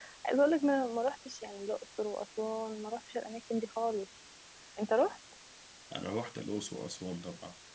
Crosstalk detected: No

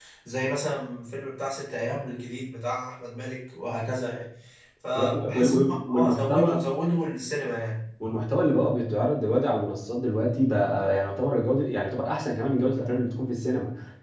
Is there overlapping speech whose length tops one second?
Yes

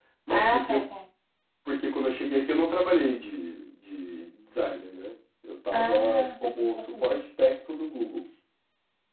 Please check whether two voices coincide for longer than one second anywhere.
Yes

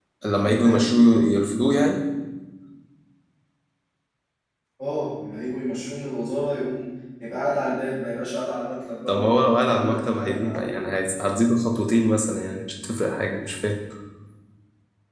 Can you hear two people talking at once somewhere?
Yes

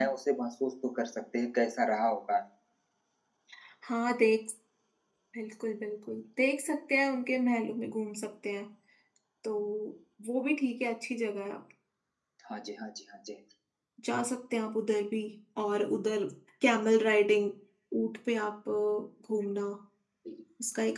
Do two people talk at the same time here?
No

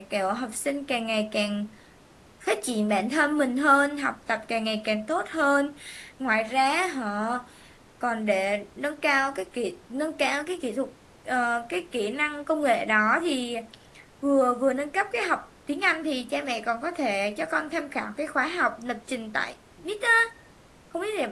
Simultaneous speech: No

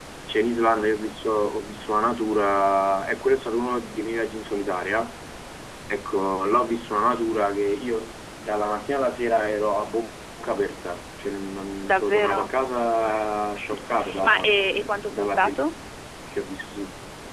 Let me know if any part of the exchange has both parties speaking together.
Yes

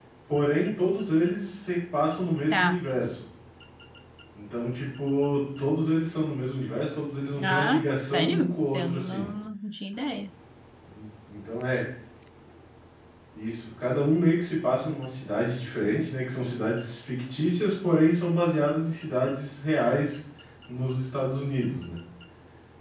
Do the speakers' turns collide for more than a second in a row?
Yes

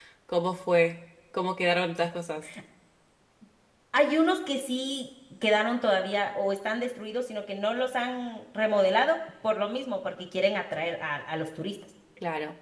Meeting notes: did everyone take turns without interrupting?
Yes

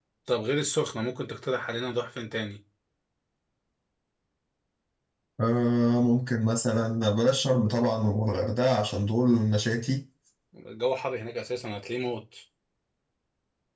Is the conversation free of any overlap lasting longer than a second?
Yes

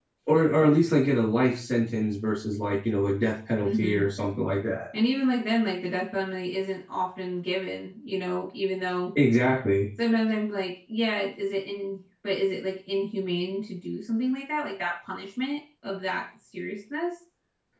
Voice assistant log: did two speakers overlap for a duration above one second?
No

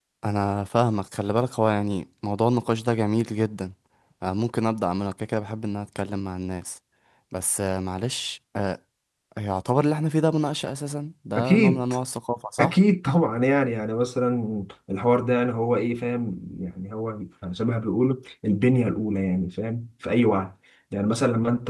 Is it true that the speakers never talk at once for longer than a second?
Yes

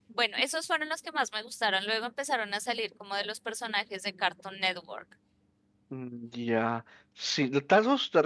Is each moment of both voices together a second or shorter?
Yes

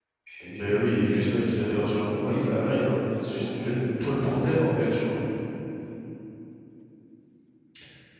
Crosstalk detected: Yes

